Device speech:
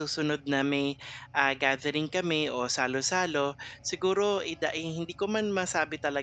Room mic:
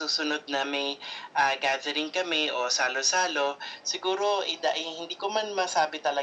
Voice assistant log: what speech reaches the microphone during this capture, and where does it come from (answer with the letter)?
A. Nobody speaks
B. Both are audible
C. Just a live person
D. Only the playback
D